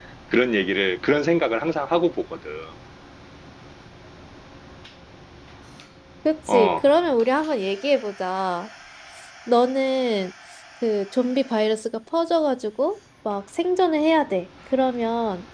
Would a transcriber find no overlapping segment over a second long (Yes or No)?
Yes